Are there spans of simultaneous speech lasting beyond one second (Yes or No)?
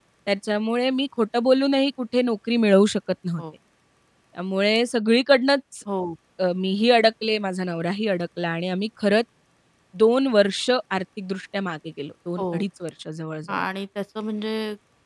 No